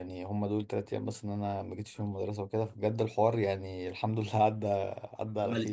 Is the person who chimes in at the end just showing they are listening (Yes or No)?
No